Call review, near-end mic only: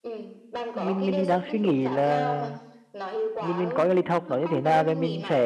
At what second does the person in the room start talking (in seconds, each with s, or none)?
0.7 s